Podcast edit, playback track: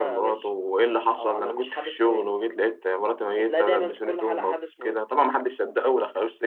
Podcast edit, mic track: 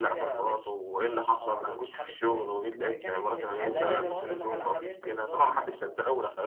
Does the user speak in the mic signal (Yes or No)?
Yes